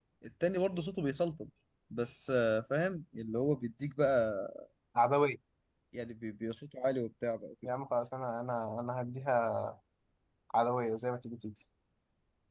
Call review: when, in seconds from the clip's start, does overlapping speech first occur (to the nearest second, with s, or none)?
none